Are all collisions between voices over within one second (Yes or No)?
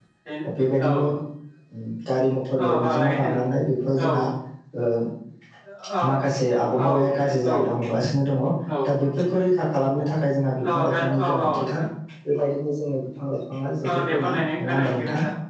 No